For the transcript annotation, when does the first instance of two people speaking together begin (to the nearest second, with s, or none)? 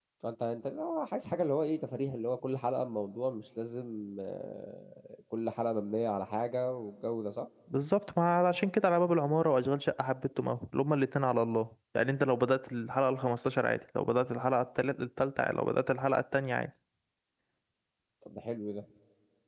none